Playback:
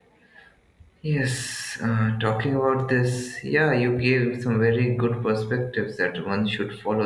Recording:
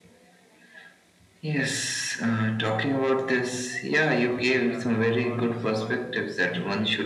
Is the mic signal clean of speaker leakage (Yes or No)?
No